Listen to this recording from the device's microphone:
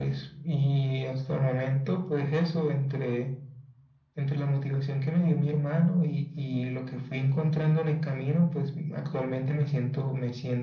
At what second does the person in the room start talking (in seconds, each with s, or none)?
none